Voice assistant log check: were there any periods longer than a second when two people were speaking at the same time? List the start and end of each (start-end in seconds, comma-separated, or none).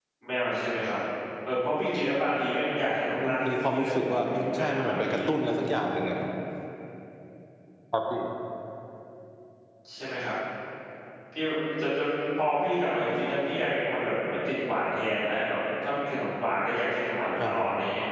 3.2-5.3